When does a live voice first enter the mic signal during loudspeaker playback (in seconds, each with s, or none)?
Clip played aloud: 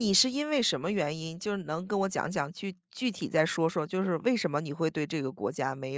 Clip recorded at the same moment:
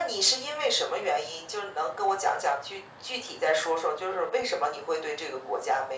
none